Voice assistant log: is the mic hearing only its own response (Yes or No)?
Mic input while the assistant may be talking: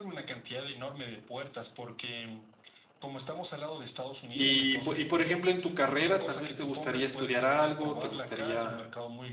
No